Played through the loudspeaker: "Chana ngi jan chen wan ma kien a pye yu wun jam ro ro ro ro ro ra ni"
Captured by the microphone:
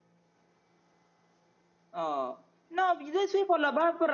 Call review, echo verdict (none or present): none